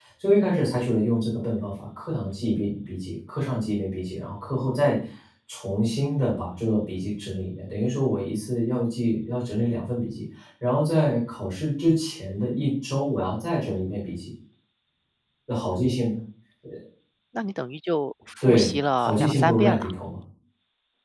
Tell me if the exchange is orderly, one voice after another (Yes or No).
No